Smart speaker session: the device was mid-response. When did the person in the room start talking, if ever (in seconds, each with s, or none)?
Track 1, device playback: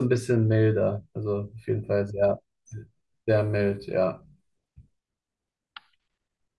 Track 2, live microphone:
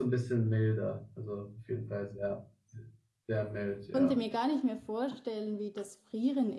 3.9 s